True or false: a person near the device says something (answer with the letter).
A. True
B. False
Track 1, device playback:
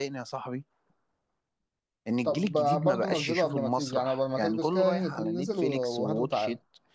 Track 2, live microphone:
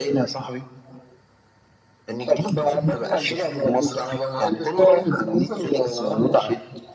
A